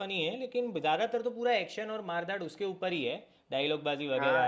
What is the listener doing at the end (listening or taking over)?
taking over